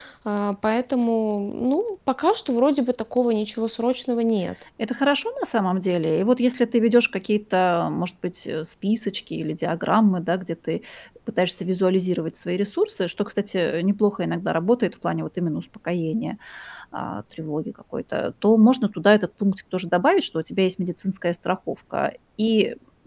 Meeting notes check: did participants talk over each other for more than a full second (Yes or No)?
No